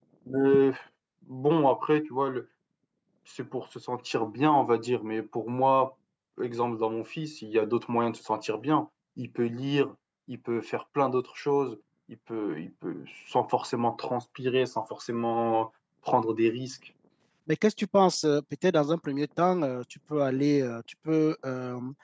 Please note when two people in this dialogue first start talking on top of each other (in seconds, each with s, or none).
none